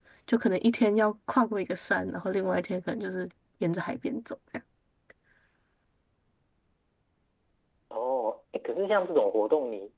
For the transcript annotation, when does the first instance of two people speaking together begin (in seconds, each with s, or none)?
none